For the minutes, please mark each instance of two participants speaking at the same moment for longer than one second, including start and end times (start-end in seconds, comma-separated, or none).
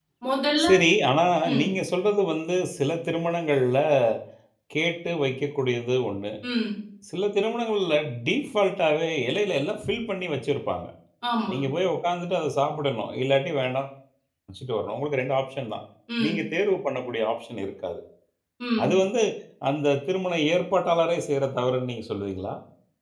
none